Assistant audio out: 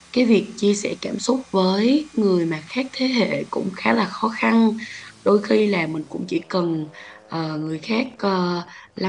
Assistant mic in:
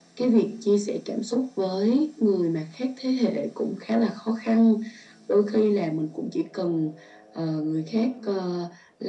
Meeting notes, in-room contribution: present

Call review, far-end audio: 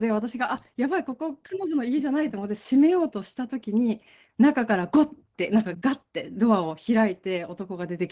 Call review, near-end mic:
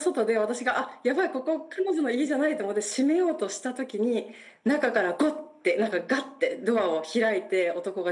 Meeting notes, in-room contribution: none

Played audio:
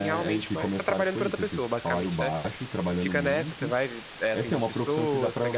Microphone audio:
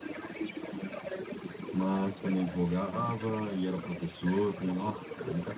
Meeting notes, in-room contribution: present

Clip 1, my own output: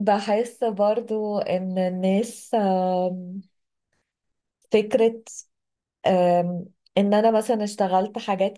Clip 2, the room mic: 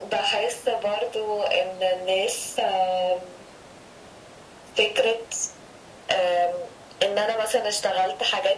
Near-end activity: none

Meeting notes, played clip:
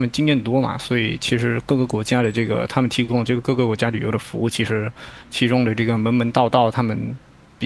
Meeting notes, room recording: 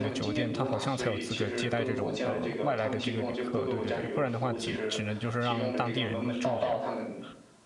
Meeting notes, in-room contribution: present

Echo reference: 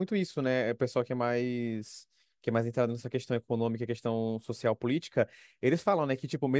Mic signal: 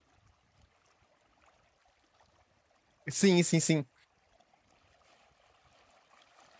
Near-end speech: present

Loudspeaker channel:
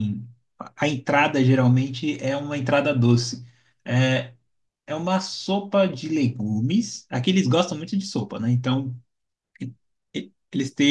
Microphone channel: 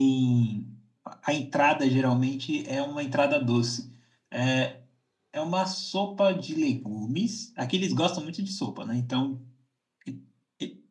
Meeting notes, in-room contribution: none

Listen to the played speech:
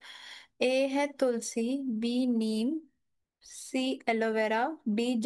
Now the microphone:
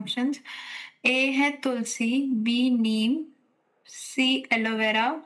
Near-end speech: none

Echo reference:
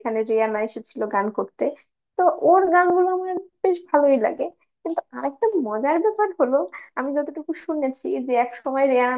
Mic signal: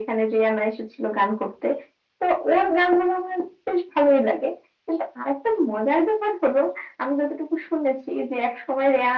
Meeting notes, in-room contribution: none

